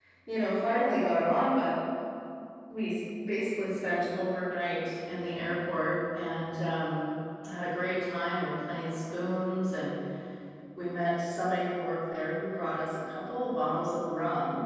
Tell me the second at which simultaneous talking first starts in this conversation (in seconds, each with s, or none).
none